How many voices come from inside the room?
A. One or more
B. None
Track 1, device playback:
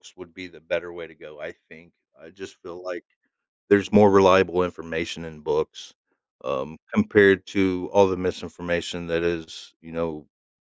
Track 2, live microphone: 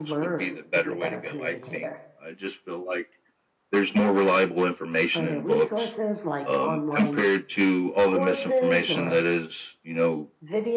A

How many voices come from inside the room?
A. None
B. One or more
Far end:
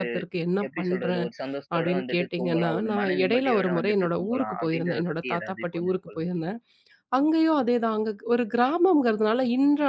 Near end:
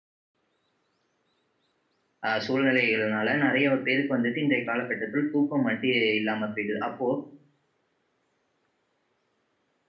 B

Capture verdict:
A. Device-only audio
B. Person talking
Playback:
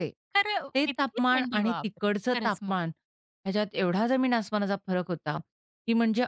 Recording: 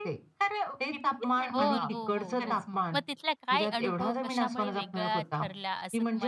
B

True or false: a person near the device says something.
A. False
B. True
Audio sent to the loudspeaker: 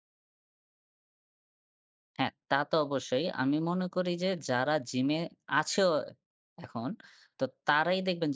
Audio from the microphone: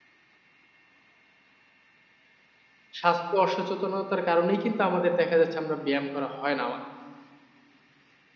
B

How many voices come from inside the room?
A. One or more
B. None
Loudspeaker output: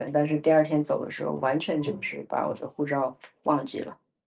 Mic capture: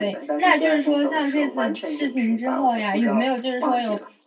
A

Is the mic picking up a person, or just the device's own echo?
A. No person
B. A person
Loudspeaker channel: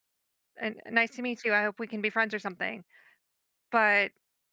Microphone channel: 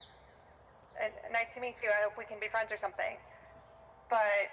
A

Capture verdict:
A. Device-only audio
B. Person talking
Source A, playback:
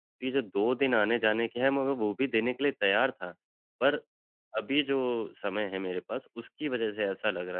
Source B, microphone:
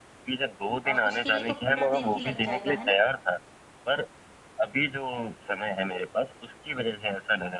B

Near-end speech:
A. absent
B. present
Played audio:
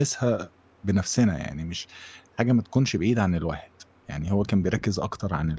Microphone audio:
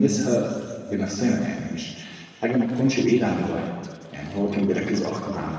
A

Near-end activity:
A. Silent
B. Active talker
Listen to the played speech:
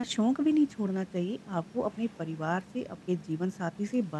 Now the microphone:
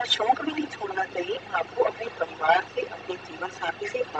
A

